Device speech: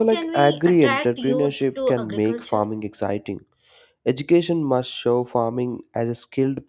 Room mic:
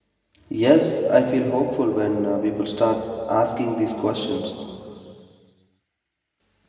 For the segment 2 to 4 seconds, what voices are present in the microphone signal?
user only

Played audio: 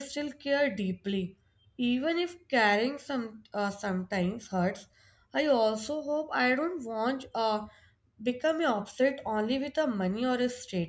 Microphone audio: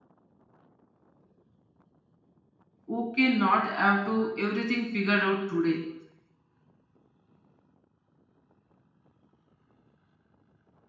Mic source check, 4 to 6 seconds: user only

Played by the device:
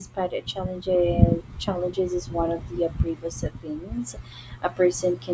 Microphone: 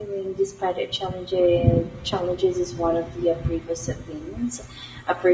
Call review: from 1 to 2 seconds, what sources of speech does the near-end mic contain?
echo only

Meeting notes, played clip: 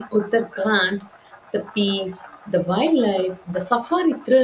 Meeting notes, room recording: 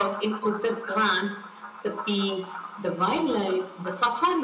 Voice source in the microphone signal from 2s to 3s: echo only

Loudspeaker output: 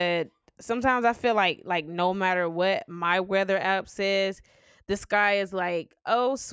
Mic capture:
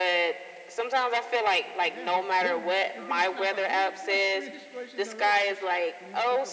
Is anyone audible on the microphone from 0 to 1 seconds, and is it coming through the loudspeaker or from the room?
echo only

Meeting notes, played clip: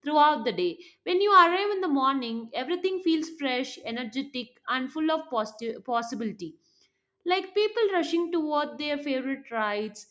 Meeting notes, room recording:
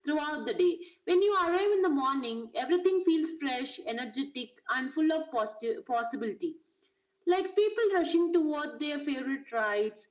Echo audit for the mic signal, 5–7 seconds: echo only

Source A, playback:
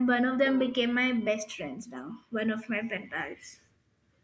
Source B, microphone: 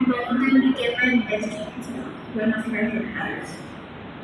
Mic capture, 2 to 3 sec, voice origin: echo only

